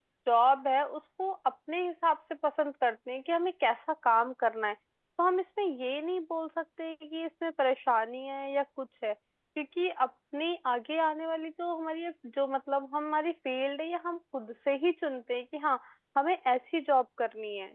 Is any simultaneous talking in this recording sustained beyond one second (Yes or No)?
No